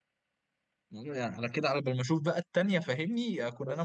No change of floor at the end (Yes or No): No